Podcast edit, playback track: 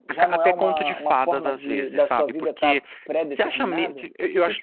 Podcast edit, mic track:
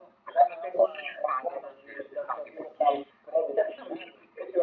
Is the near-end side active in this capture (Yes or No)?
No